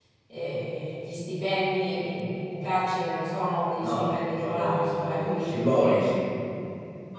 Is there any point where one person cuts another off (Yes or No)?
Yes